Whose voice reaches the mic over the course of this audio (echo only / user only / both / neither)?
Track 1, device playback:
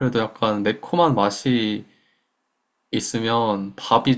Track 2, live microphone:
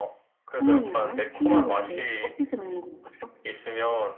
both